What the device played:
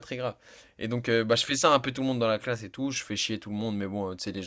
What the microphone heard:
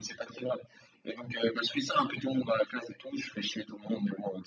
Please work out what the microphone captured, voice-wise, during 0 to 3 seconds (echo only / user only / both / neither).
echo only